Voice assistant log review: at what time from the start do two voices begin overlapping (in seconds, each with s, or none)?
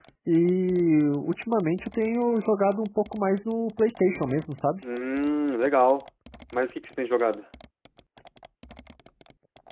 none